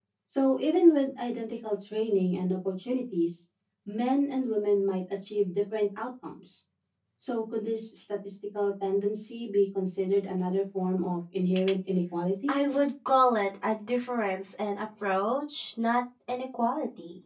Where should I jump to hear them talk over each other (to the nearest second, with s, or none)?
none